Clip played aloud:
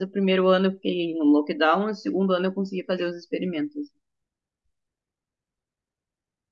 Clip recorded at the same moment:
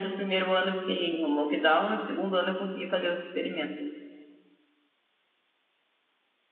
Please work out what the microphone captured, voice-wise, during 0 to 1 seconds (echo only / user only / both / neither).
echo only